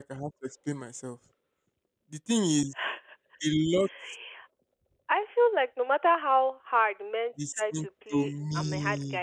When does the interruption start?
7.4 s

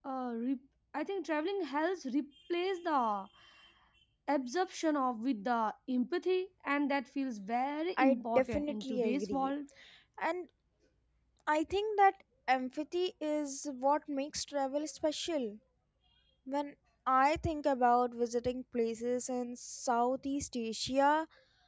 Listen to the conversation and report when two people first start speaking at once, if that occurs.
8.0 s

